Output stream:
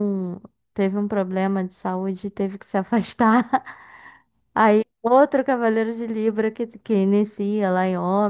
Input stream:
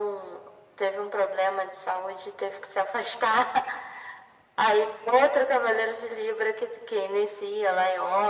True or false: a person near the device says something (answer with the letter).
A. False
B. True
A